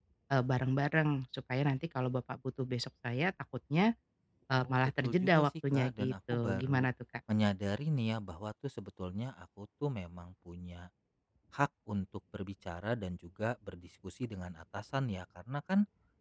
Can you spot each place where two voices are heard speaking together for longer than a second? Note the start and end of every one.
4.6-6.8

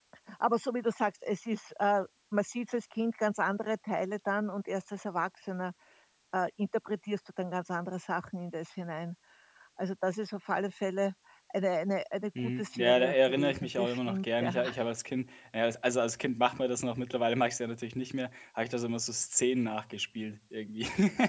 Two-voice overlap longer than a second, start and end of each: 12.4-14.5

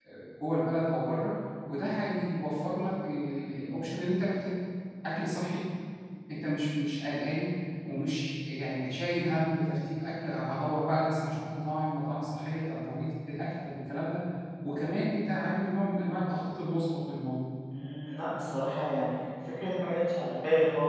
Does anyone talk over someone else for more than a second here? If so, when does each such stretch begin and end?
none

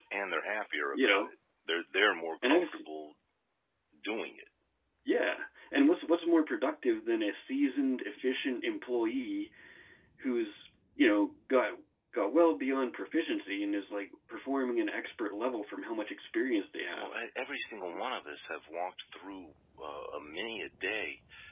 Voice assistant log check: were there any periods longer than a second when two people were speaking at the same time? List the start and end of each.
none

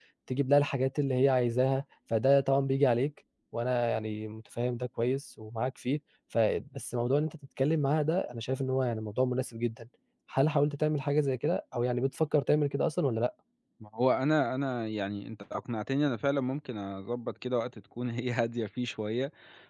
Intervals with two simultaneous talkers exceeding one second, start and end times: none

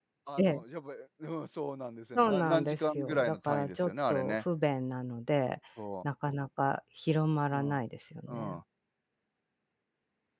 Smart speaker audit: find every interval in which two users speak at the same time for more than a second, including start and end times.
2.1-4.3

